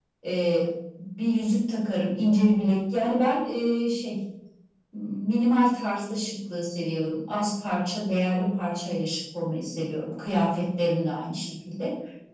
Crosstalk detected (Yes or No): No